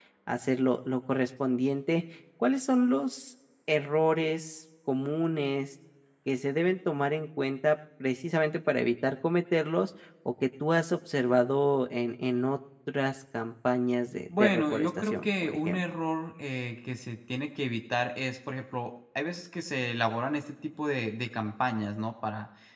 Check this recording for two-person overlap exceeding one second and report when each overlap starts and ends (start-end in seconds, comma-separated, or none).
14.4-15.8